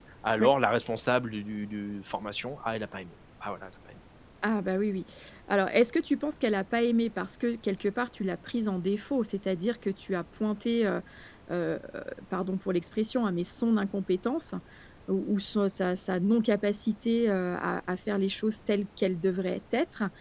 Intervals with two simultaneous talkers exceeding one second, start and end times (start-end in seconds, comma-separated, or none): none